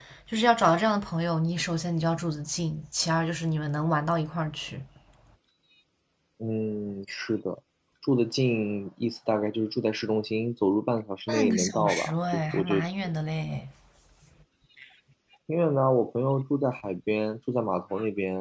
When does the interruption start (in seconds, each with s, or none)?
11.3 s